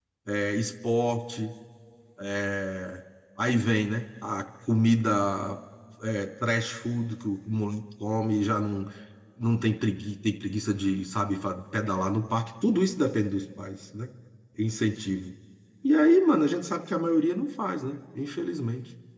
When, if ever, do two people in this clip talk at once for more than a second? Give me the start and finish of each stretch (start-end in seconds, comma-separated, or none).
none